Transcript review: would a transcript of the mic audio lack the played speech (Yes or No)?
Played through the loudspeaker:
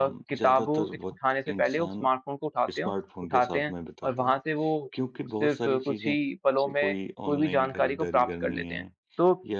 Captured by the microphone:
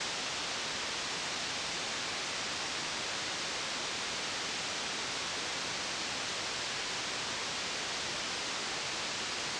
Yes